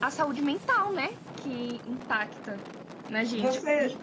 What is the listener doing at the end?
listening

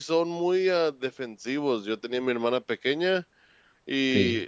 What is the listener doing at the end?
listening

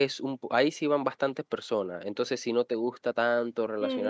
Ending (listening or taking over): taking over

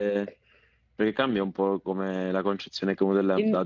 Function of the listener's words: listening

